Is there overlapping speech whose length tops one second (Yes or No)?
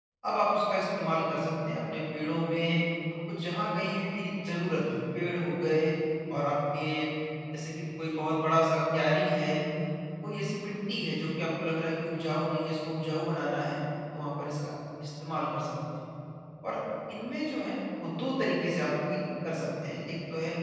No